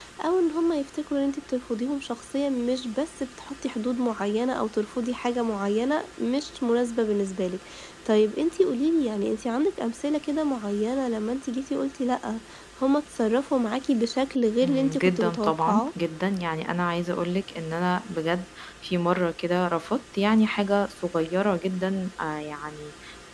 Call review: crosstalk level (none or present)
present